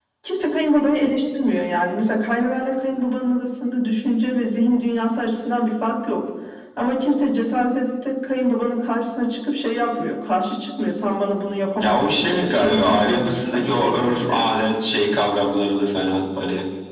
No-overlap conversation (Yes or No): No